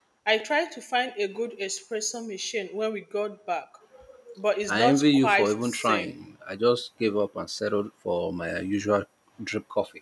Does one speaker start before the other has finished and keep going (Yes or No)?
Yes